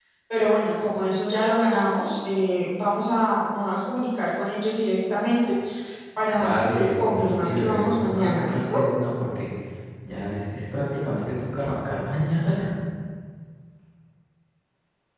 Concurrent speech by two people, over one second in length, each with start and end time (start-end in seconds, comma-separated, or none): 6.3-8.8